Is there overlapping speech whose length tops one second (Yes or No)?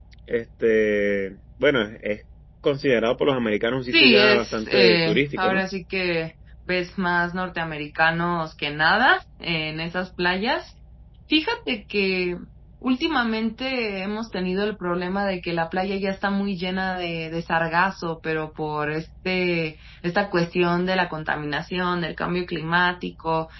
Yes